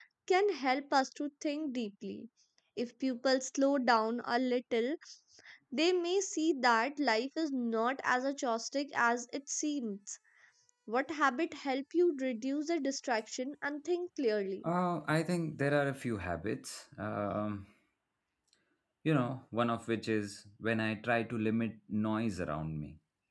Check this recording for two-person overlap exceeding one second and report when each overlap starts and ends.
none

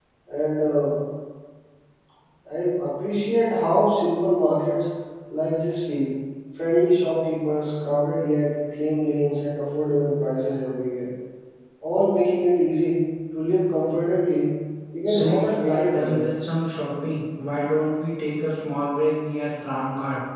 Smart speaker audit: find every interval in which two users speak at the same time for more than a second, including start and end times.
15.0-16.3

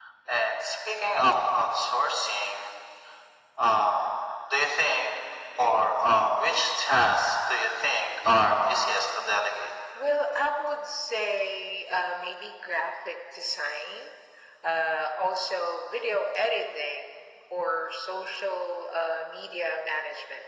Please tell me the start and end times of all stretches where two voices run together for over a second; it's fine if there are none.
none

